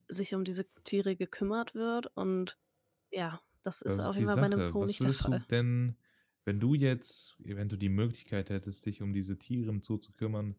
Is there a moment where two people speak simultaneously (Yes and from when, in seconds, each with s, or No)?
Yes, from 3.9 s